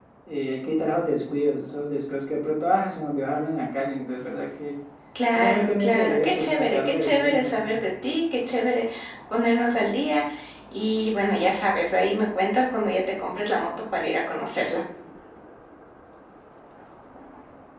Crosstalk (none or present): present